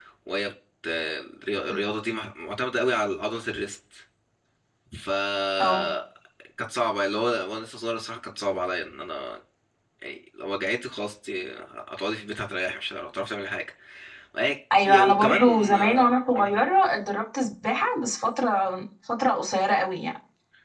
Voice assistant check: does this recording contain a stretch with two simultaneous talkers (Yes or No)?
Yes